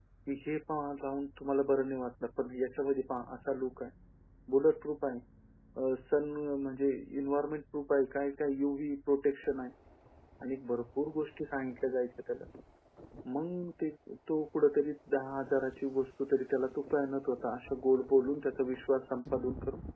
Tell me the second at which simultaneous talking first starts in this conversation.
none

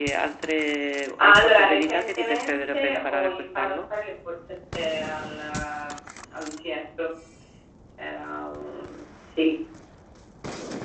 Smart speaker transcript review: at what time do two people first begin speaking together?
1.2 s

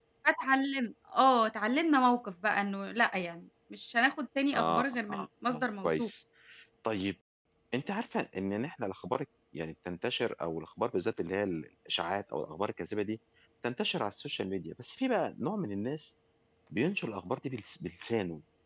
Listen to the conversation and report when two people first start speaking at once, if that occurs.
4.5 s

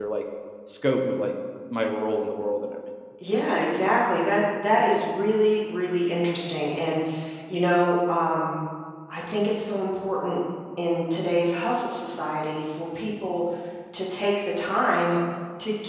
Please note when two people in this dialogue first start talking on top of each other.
none

